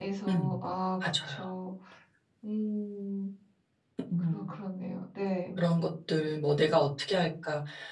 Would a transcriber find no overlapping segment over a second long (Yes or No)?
Yes